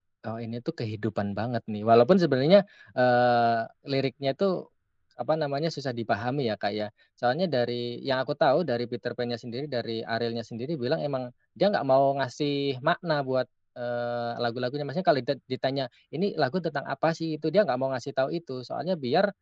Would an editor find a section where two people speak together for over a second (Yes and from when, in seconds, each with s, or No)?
No